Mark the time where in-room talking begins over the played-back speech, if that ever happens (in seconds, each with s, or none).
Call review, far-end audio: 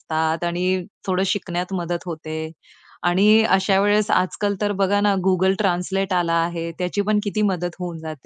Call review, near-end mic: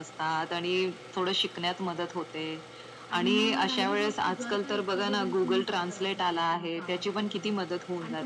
3.1 s